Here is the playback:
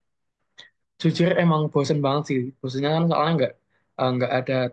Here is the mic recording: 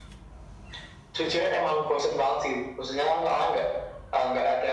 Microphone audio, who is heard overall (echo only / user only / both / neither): echo only